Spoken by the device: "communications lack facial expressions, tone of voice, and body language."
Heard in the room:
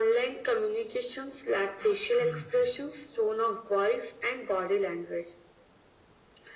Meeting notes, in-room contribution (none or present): present